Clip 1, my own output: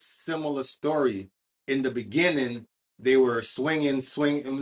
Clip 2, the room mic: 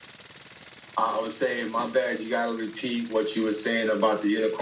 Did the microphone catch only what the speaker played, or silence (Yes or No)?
No